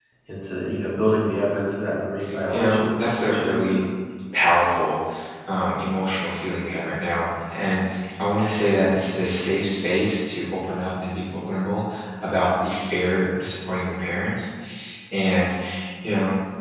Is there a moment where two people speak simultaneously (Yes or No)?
Yes